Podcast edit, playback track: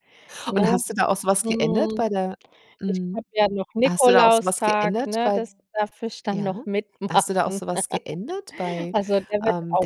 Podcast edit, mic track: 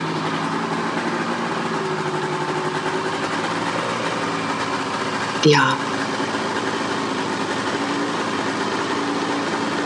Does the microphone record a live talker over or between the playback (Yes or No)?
Yes